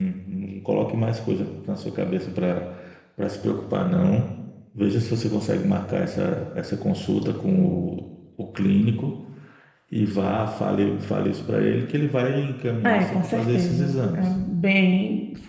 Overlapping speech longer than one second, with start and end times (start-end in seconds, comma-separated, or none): 12.8-14.2